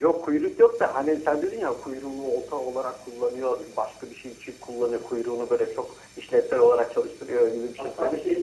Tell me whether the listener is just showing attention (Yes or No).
No